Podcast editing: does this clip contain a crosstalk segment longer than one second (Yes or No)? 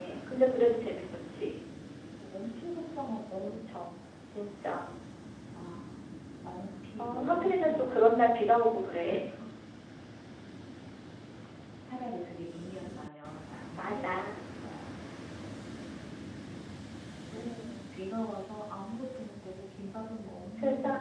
Yes